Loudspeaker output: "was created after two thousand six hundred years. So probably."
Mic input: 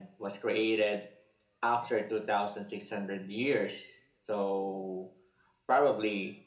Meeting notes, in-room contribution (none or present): none